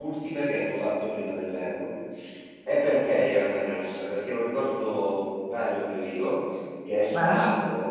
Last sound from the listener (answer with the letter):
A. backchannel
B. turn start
A